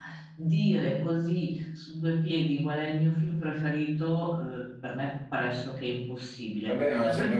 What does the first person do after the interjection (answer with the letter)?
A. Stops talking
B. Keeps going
A